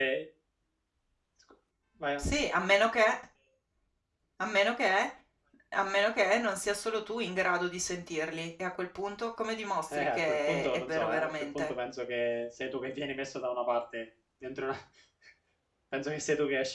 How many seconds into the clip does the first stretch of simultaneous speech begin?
9.9 s

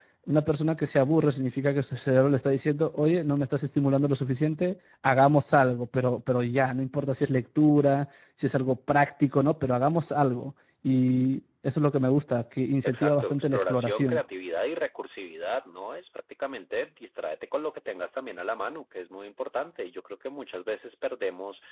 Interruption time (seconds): 12.8 s

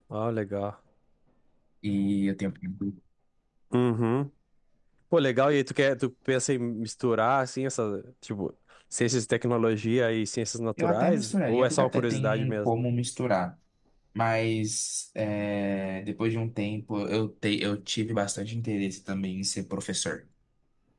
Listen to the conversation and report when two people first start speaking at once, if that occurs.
10.8 s

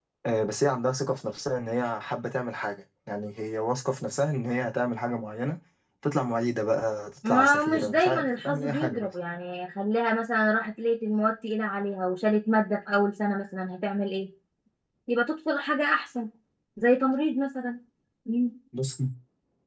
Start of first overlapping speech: 7.2 s

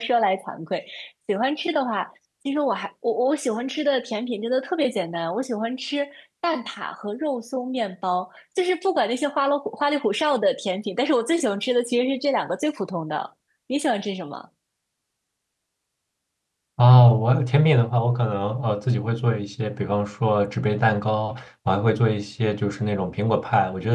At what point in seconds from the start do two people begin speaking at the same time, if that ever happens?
none

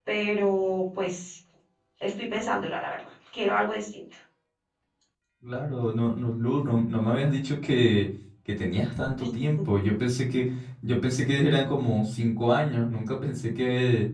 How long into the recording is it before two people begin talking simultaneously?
none

